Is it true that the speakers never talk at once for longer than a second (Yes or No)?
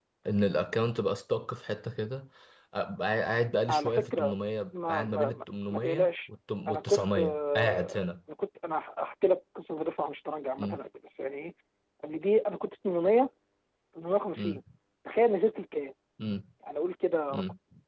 No